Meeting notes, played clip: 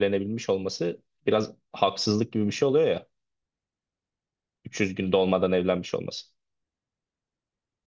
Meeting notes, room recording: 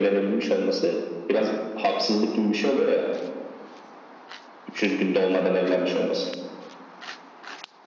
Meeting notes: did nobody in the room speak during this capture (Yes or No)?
No